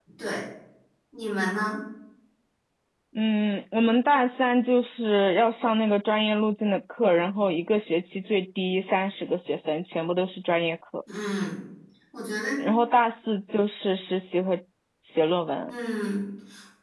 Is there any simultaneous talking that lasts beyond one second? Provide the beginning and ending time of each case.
none

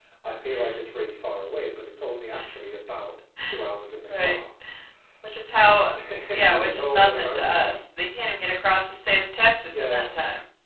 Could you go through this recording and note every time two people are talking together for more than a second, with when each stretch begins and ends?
6.3-7.8

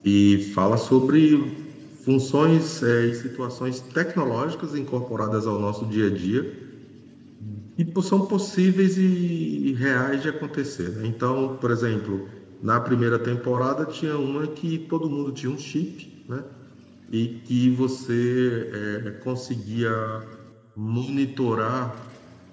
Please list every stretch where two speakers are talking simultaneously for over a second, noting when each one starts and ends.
none

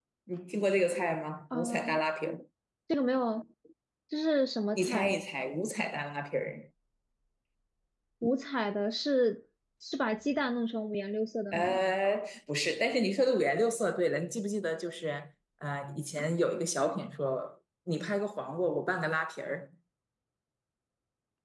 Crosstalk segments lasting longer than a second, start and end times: none

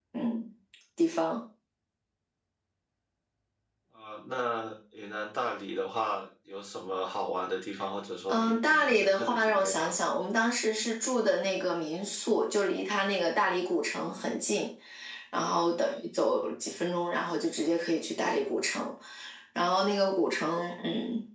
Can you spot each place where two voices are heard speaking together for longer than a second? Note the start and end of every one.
8.3-9.9

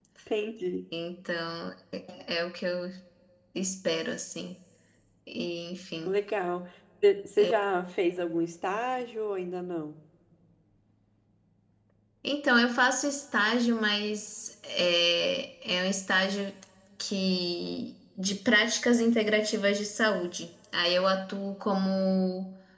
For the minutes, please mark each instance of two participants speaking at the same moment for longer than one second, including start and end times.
none

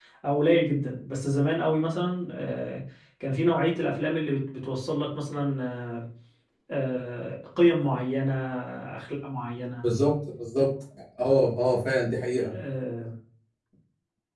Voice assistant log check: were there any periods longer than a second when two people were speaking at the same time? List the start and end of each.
none

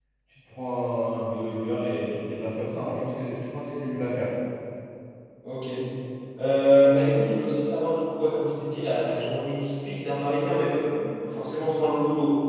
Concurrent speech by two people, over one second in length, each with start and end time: none

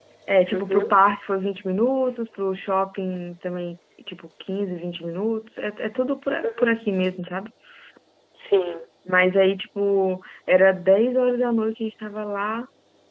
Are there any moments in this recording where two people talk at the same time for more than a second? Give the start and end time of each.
none

